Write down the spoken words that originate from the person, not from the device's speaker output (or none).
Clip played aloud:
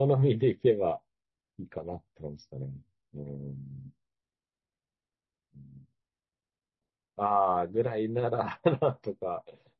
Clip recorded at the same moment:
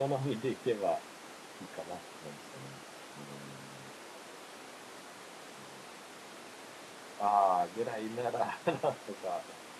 none